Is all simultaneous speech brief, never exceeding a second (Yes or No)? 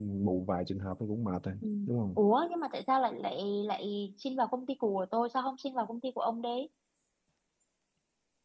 Yes